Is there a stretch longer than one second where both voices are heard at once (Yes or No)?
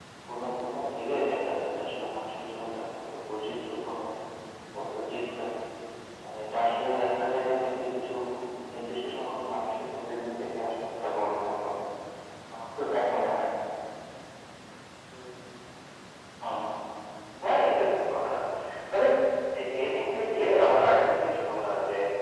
No